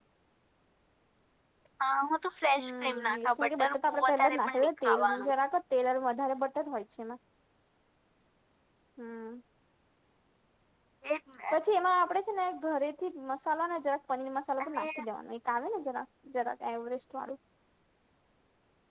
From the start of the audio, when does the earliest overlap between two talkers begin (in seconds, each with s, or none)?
2.6 s